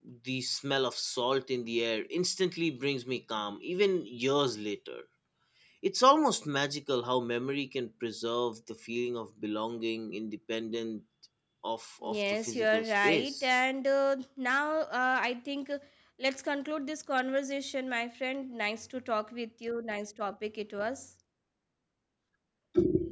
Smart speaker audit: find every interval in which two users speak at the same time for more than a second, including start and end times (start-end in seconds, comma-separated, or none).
12.1-13.5